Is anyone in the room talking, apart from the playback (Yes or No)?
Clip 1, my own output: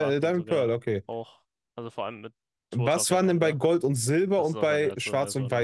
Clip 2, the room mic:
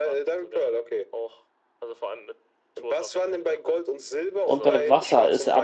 Yes